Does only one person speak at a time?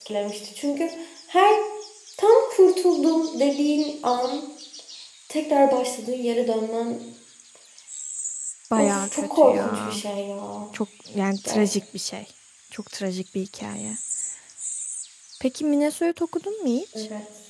No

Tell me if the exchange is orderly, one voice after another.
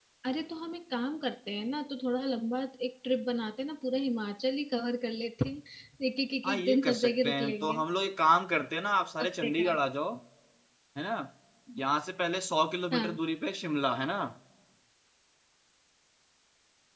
No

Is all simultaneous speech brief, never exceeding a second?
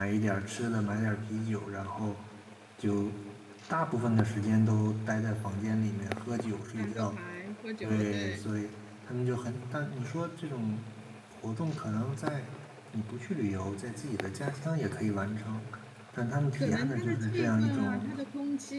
No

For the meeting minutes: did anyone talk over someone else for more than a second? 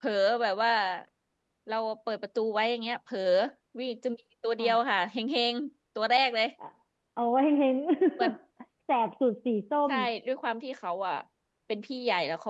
No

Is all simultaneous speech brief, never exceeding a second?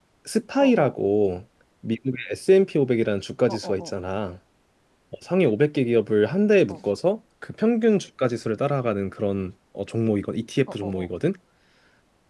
Yes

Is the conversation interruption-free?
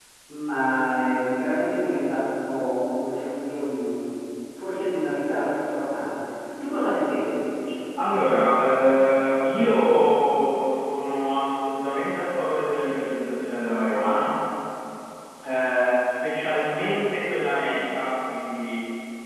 Yes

